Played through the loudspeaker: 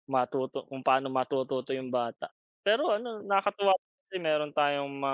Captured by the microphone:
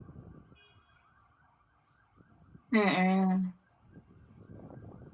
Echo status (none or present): none